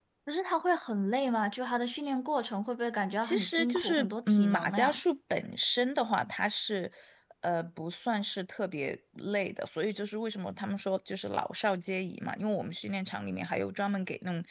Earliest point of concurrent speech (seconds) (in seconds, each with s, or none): 3.2 s